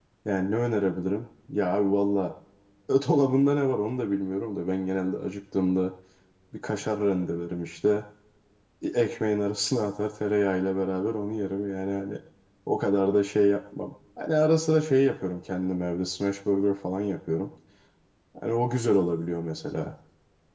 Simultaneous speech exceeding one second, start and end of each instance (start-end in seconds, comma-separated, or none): none